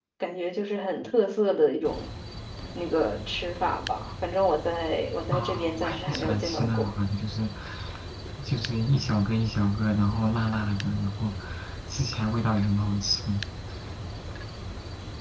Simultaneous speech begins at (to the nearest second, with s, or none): 5 s